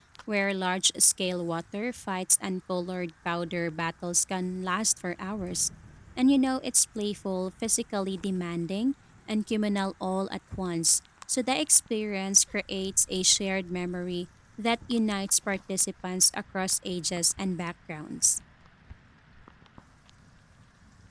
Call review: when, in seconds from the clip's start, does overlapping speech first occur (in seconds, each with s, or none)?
none